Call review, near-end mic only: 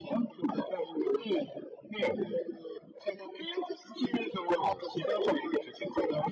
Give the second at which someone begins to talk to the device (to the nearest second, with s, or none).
none